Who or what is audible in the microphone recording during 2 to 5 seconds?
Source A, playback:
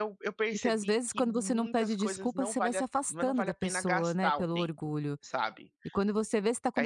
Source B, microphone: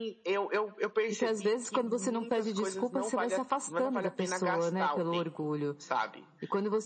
echo only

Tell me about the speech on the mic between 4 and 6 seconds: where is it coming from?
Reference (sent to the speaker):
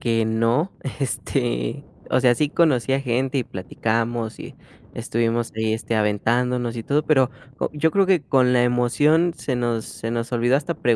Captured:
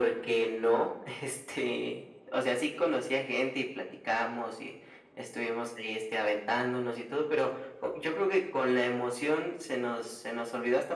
echo only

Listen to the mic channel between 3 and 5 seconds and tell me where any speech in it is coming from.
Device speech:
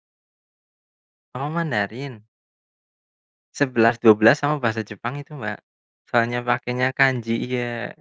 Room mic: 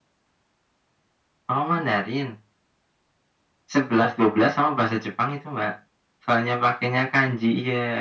echo only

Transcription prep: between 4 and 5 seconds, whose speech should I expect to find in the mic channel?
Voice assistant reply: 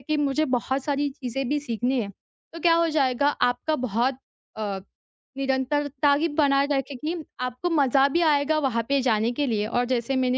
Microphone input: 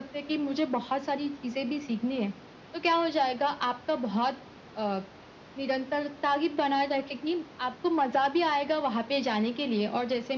echo only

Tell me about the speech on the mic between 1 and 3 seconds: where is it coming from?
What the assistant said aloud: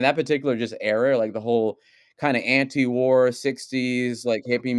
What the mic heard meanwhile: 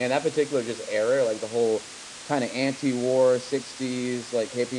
echo only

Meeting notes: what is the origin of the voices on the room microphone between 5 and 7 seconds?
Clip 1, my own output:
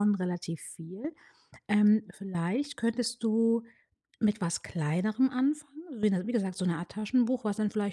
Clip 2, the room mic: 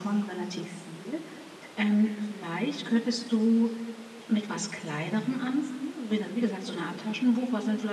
echo only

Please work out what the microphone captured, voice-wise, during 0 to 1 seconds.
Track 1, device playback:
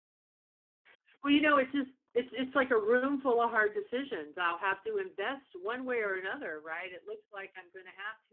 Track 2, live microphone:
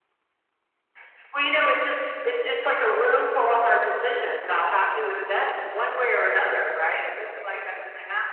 neither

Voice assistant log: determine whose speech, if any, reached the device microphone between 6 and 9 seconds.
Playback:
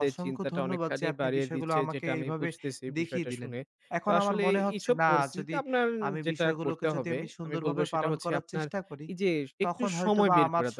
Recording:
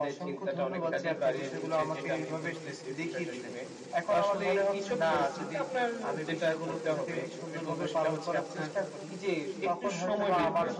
echo only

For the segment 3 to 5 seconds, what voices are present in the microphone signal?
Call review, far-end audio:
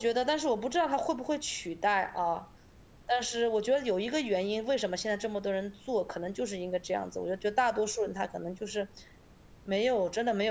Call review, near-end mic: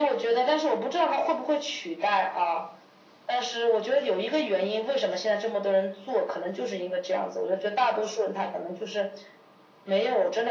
echo only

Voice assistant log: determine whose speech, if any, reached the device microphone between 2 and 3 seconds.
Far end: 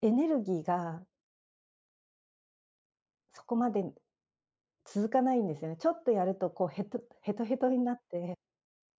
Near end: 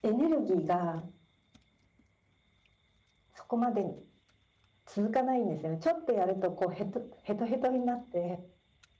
neither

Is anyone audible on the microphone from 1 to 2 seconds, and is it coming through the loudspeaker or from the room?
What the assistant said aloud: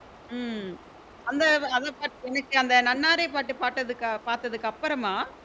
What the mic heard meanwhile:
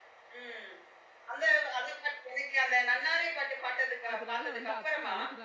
echo only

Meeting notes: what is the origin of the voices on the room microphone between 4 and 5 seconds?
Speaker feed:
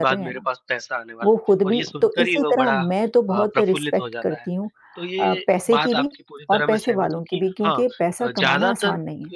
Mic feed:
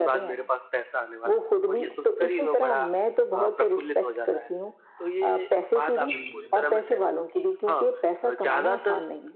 echo only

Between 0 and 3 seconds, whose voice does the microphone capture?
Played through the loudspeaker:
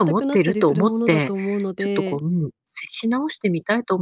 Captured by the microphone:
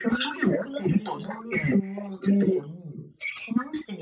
echo only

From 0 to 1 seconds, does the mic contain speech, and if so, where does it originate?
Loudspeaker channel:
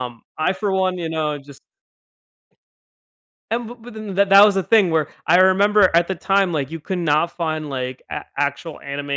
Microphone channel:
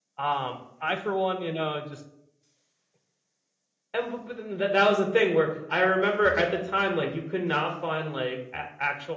echo only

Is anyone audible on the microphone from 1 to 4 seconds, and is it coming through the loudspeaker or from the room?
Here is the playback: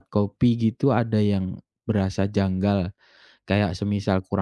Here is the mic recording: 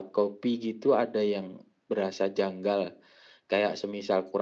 echo only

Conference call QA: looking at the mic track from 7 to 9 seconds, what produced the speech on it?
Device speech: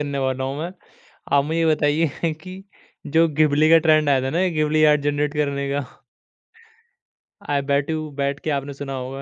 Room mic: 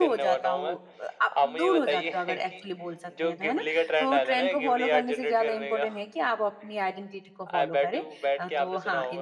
both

